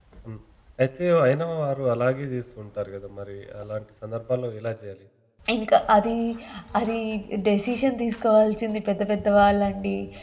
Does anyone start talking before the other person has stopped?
No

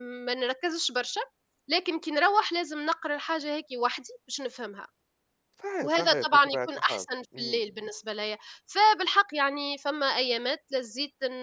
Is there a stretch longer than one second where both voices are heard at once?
Yes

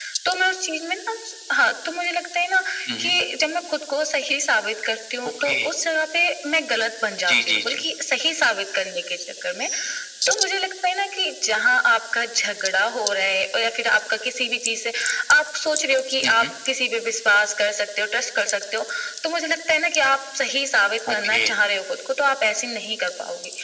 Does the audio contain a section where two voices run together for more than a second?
No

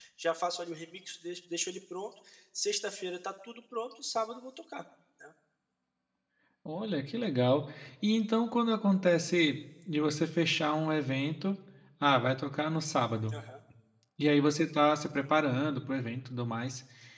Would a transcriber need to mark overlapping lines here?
No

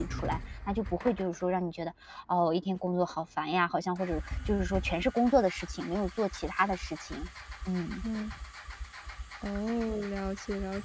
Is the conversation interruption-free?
Yes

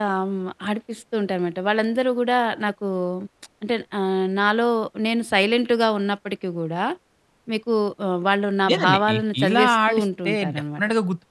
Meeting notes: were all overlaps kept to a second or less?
No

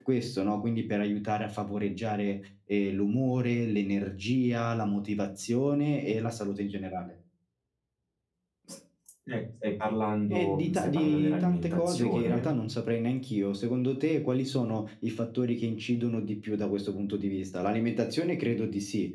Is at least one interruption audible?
Yes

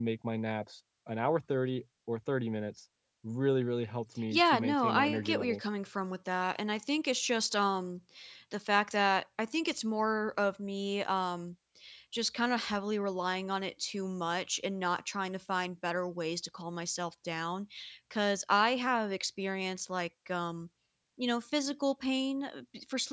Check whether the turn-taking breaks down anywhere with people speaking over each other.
Yes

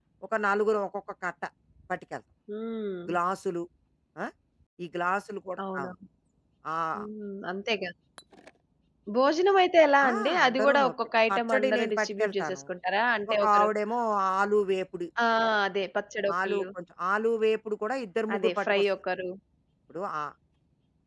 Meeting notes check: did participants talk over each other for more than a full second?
Yes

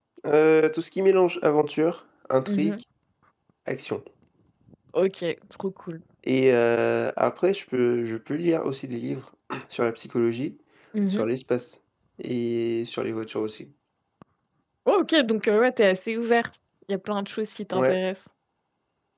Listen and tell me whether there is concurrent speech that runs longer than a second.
No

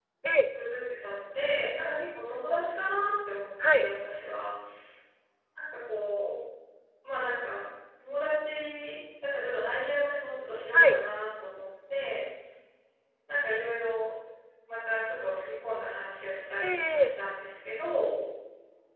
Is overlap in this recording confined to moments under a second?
Yes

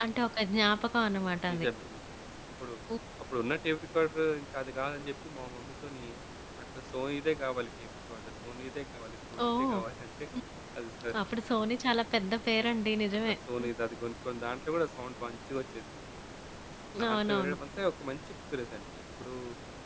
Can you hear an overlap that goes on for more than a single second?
No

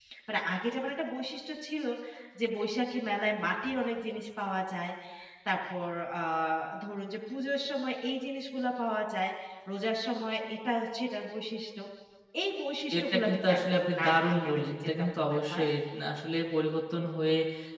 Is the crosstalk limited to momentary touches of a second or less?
No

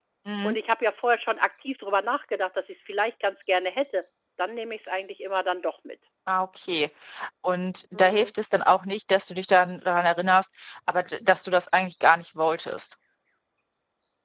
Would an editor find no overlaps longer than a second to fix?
Yes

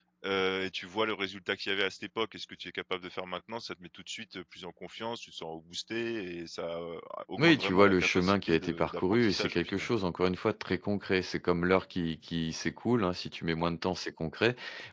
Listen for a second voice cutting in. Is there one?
Yes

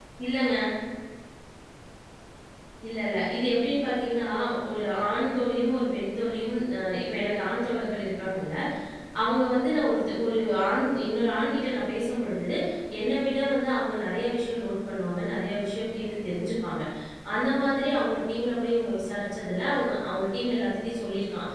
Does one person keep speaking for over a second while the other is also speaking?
No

